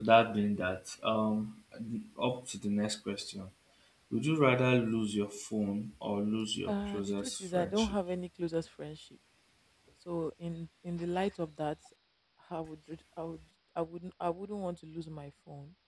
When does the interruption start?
6.7 s

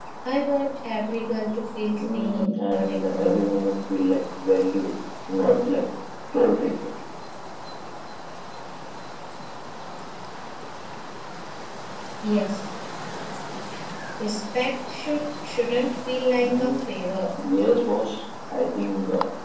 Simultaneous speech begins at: 2.0 s

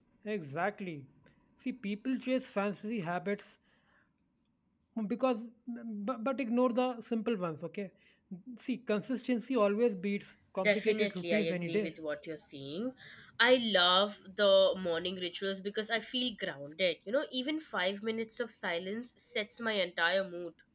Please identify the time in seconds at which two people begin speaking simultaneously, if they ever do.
10.6 s

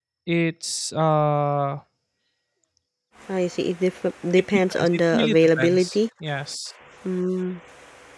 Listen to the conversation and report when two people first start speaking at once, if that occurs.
4.5 s

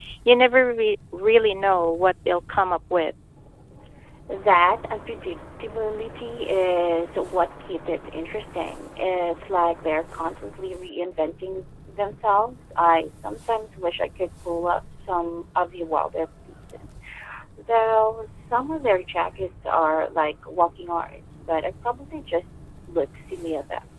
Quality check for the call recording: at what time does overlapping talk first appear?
none

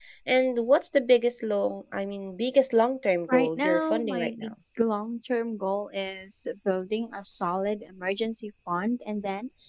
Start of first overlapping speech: 3.3 s

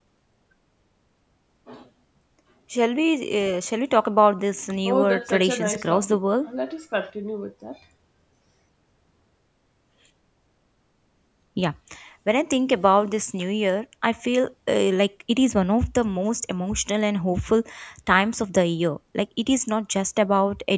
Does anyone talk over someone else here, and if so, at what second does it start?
4.7 s

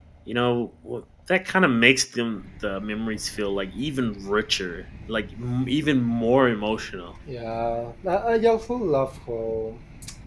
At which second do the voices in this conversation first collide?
none

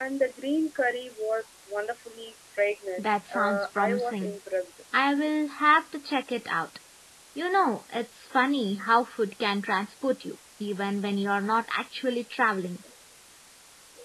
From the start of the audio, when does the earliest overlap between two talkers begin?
3.0 s

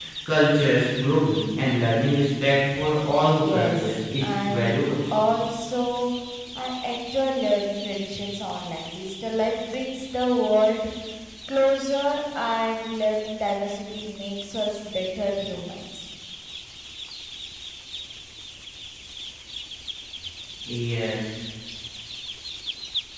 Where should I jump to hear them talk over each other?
3.1 s

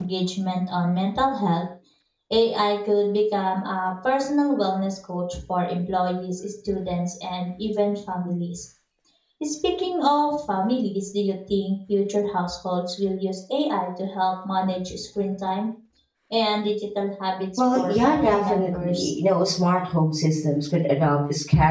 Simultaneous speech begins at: 17.6 s

